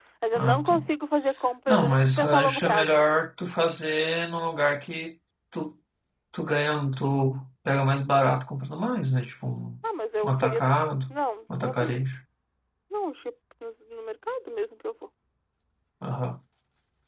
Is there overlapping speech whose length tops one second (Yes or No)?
Yes